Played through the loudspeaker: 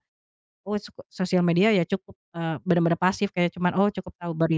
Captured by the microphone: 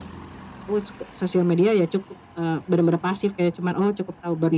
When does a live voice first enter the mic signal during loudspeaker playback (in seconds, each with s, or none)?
none